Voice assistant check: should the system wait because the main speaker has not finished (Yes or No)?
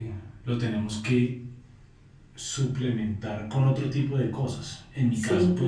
Yes